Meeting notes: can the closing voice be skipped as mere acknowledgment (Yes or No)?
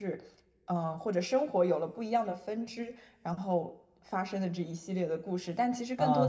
No